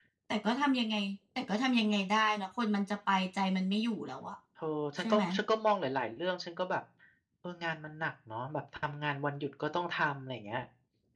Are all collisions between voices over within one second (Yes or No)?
Yes